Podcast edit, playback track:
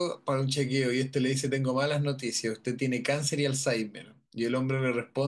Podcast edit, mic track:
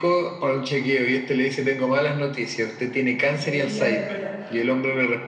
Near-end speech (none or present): present